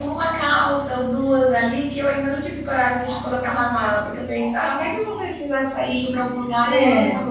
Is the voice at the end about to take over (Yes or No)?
No